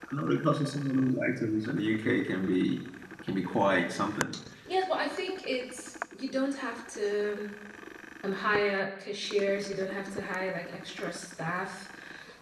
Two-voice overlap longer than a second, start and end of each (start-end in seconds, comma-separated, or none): none